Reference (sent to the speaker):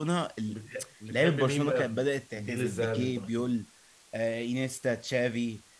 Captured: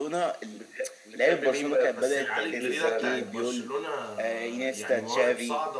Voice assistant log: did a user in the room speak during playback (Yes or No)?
Yes